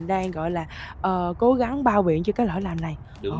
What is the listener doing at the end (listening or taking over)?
taking over